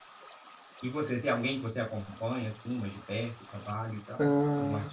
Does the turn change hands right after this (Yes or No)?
Yes